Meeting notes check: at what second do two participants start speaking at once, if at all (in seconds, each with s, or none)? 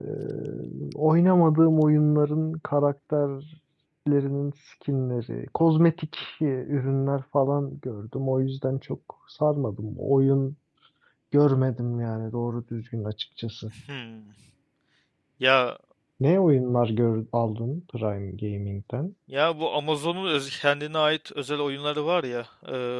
none